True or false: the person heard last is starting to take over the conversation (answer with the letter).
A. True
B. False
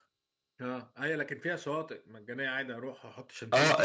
A